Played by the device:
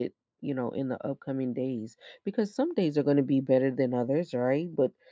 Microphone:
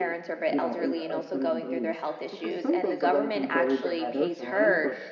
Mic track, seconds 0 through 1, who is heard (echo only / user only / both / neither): both